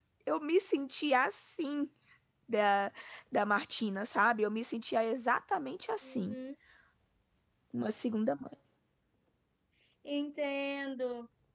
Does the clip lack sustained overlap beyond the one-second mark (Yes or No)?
Yes